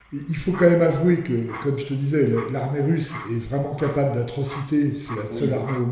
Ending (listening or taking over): listening